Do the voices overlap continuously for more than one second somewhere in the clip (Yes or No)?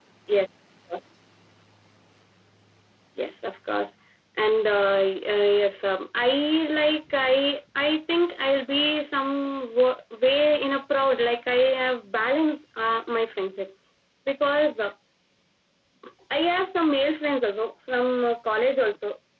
No